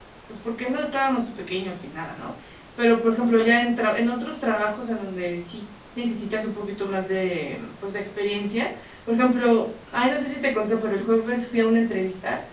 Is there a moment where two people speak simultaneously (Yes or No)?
No